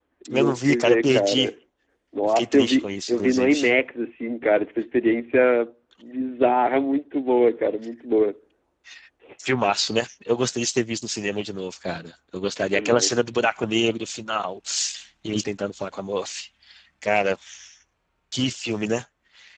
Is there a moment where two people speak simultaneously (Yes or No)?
Yes